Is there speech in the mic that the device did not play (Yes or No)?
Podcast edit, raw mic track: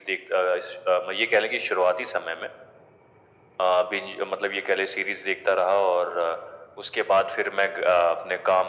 No